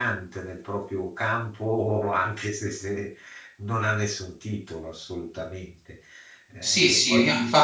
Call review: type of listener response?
taking over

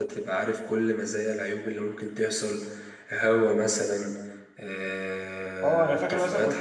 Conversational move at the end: taking over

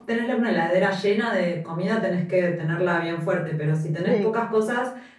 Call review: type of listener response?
listening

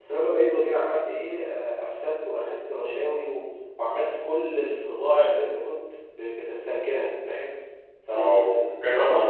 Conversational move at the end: taking over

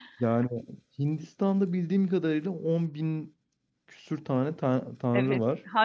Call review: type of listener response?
taking over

